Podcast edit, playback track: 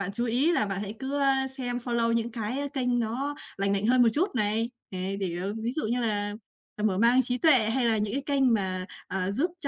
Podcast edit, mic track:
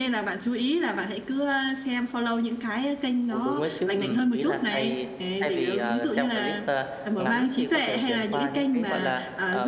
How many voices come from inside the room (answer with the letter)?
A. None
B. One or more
B